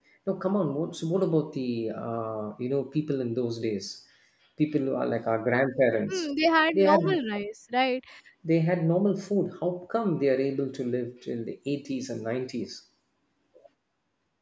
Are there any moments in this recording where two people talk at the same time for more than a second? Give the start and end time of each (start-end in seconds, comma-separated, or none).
none